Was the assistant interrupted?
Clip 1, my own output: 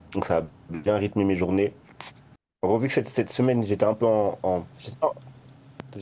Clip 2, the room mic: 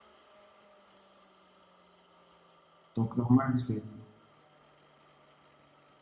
Yes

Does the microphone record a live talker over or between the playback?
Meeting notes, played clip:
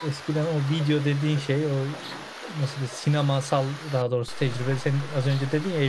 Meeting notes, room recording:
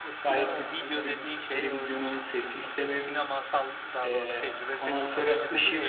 Yes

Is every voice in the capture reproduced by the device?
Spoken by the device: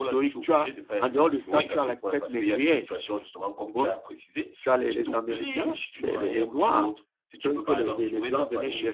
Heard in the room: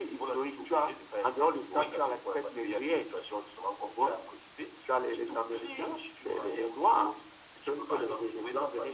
Yes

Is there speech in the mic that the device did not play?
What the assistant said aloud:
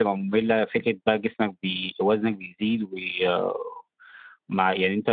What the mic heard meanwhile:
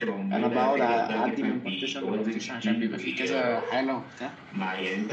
Yes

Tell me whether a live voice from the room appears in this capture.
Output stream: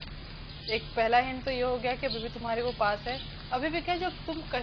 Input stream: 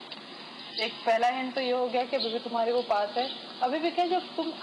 No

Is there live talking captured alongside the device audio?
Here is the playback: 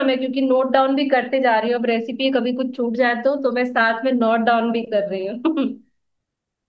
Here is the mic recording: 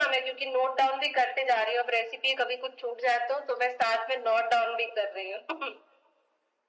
No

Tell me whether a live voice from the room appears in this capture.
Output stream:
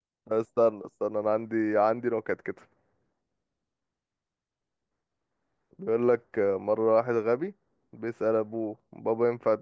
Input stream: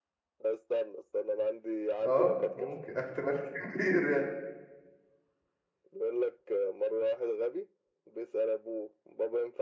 Yes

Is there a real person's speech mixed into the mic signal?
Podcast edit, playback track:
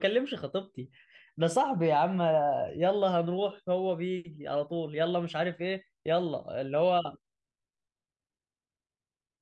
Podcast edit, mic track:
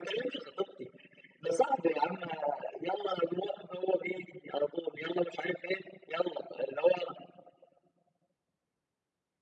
No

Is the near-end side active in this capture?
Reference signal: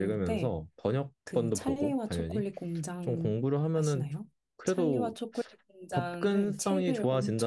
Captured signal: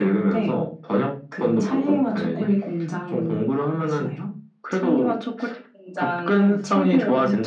No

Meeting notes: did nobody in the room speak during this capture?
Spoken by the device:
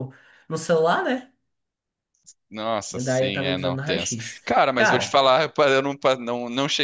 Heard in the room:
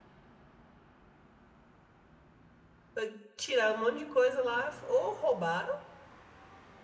No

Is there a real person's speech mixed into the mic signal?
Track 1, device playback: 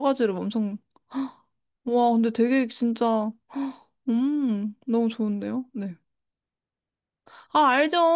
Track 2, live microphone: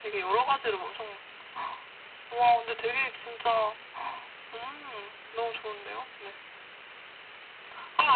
No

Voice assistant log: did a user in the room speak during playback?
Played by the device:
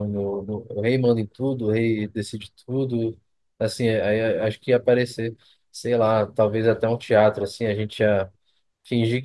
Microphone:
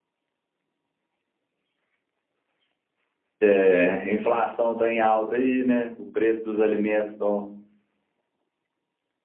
Yes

